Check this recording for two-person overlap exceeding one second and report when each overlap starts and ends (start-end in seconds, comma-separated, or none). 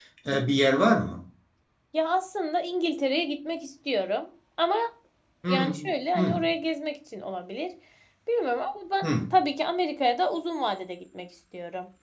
none